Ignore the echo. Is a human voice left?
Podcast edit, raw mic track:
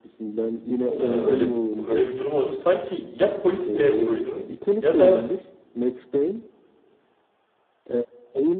Yes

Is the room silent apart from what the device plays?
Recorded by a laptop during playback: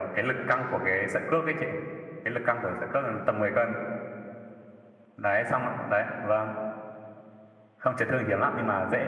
Yes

